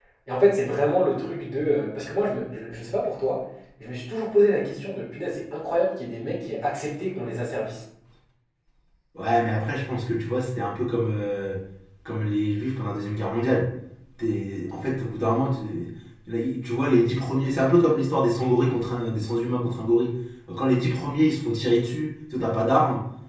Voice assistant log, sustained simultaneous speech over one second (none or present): none